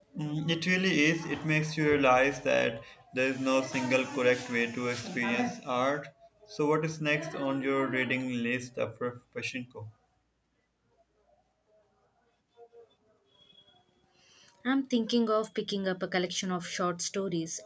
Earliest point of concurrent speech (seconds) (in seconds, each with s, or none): none